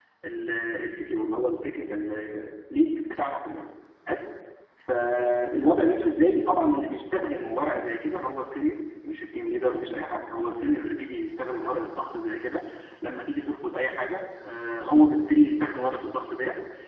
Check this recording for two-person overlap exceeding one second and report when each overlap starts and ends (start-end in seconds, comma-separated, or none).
none